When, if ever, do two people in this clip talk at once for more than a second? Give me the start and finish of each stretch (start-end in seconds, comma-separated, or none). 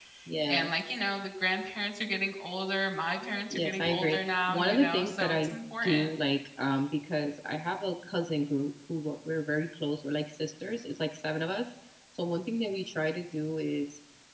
3.5-6.1